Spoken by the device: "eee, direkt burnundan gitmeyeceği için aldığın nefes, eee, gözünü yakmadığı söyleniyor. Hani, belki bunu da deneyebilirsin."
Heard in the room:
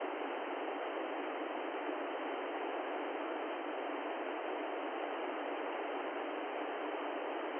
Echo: none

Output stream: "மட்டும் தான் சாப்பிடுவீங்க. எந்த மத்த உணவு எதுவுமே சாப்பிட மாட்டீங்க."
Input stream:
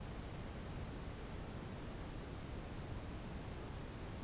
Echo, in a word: none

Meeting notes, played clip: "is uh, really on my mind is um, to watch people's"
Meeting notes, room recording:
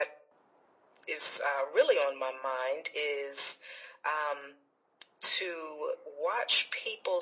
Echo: present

